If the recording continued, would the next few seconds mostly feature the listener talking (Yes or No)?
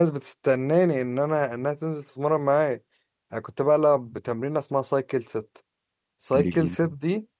No